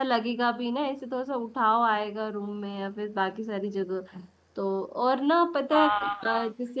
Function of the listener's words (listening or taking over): taking over